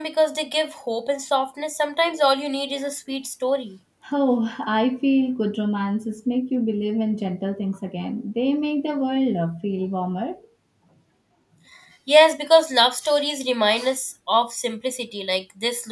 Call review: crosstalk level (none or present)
none